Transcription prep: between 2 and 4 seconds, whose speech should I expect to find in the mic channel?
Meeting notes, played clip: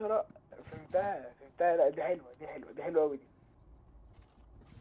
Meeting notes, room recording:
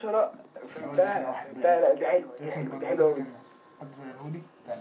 both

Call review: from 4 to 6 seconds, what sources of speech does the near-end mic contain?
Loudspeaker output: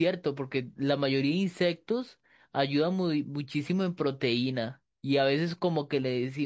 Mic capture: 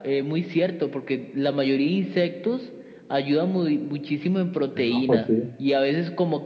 both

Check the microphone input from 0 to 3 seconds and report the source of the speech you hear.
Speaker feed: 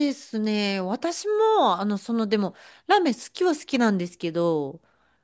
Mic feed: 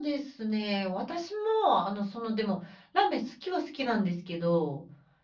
echo only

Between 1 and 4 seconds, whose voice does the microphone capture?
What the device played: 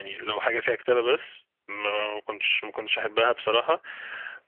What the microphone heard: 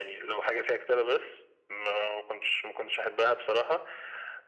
echo only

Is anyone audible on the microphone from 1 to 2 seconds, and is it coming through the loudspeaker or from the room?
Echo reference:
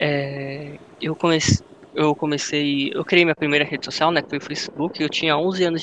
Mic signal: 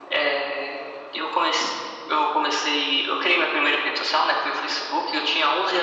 echo only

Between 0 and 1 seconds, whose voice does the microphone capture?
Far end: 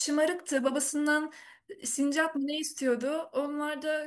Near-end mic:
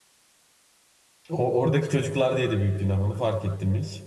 neither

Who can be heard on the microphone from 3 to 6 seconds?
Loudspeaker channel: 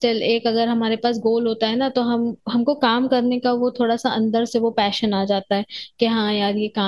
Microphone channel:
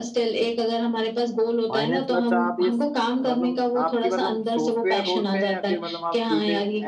both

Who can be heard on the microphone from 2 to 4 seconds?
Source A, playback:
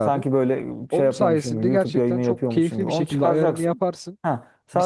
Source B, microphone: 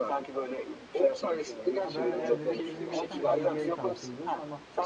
both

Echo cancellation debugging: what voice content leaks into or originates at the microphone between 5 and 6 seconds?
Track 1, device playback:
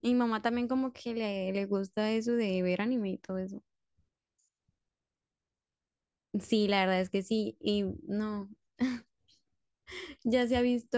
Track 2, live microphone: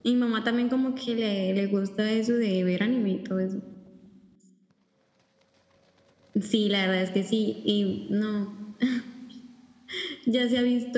neither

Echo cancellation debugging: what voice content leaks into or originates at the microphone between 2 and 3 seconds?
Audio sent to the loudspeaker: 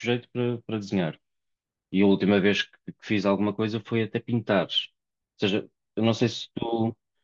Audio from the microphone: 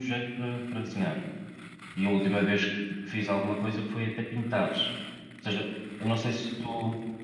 echo only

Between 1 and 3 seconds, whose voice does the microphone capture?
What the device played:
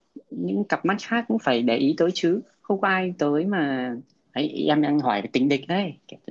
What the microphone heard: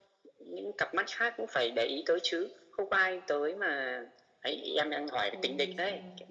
echo only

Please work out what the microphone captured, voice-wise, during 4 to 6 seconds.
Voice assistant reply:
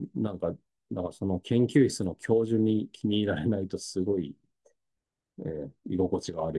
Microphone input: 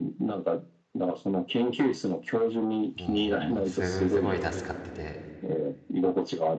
both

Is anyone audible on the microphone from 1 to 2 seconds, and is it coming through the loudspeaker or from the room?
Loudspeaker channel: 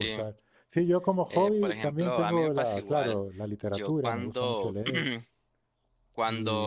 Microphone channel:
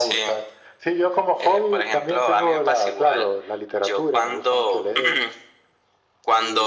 echo only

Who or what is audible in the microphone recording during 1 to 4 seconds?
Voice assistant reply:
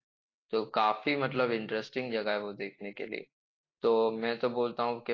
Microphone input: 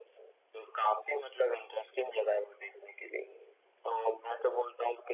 echo only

